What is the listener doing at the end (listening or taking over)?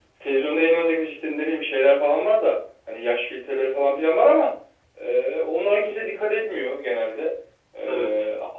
listening